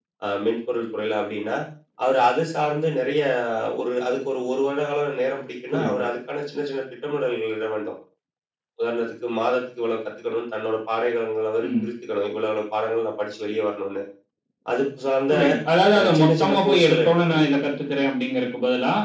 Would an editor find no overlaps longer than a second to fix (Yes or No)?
No